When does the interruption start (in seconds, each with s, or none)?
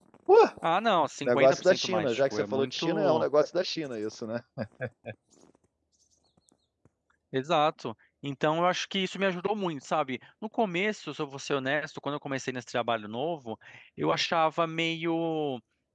1.2 s